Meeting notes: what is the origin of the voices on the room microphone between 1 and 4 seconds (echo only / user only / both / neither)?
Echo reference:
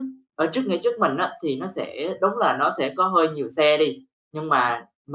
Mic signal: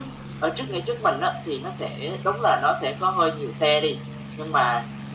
echo only